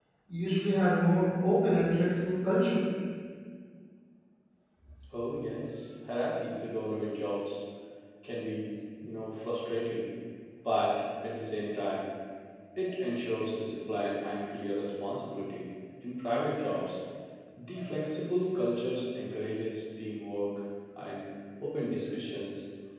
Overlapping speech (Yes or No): No